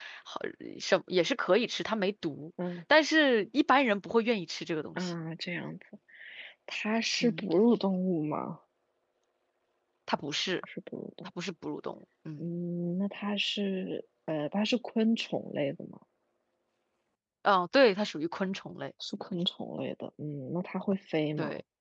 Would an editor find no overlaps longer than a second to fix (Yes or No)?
Yes